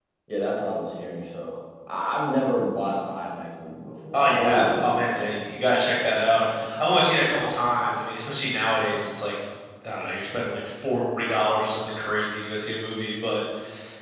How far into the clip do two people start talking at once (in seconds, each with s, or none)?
4.1 s